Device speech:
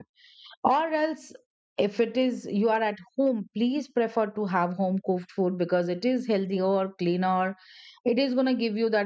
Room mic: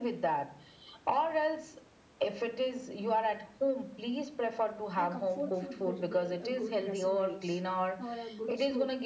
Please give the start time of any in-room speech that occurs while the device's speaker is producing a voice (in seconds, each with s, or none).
4.9 s